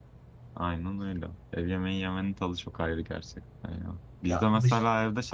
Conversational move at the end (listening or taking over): listening